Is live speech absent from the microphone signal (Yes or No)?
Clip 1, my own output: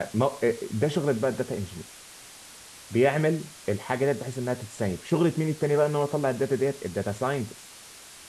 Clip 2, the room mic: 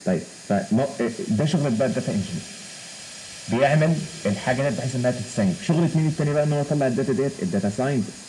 Yes